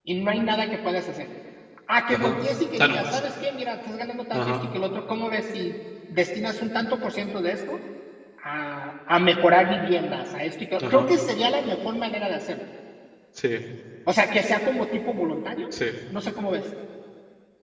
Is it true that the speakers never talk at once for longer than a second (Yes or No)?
Yes